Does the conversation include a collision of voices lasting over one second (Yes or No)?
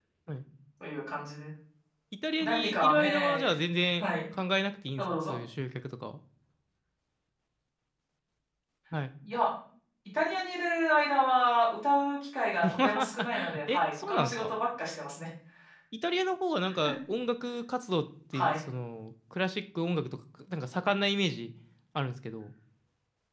Yes